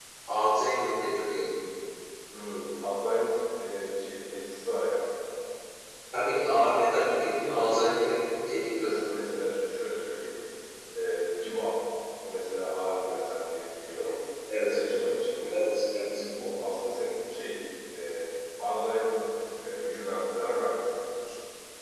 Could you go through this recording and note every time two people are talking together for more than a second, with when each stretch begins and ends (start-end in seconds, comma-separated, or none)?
none